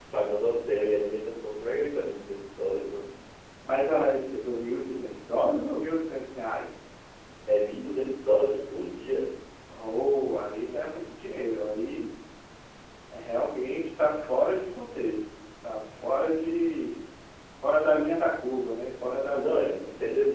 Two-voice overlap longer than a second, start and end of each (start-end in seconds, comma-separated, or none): none